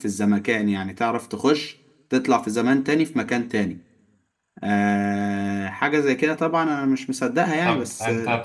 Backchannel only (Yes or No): No